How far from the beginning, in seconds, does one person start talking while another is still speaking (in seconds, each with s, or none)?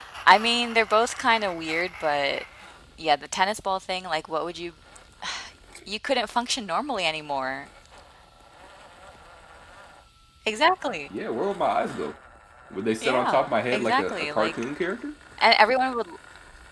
13.0 s